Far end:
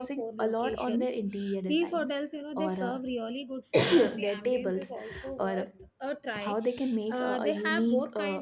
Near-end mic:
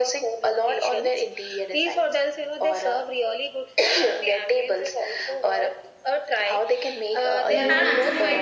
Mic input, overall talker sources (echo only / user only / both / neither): both